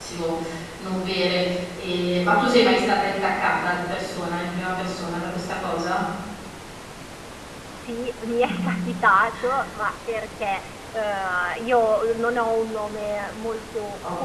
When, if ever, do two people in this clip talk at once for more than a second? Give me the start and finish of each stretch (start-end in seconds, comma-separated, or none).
none